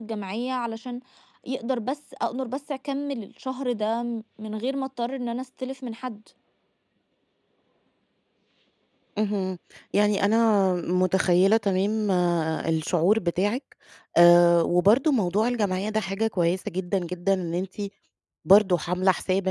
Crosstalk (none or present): none